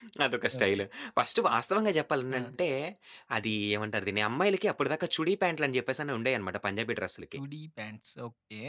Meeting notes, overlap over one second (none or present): none